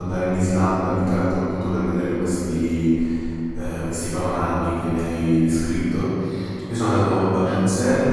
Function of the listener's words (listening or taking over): listening